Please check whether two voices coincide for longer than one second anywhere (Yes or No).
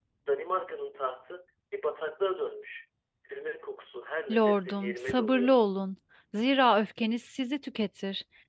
Yes